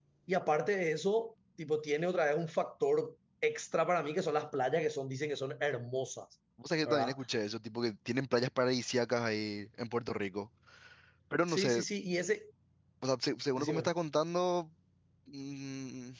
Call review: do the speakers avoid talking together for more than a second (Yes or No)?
Yes